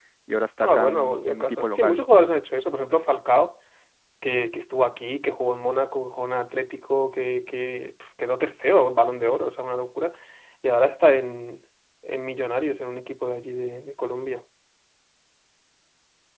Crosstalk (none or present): present